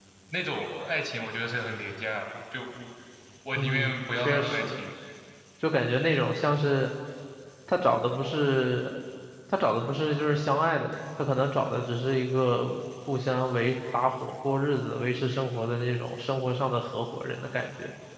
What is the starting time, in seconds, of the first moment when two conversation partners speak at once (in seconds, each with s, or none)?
3.5 s